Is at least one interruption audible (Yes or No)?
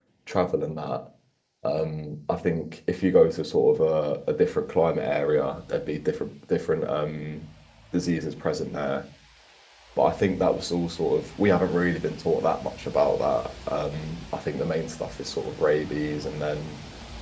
No